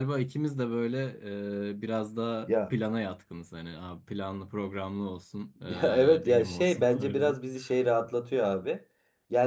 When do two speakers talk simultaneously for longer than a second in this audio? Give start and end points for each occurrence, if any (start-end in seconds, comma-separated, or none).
5.7-7.3